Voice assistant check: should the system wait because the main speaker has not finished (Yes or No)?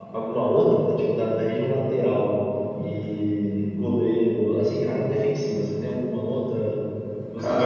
No